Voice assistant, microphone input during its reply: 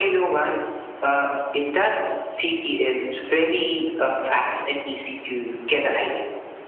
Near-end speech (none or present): none